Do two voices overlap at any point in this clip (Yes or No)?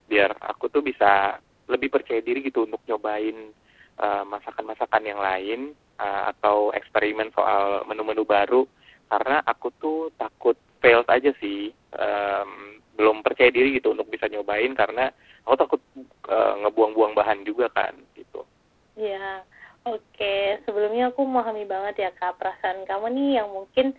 No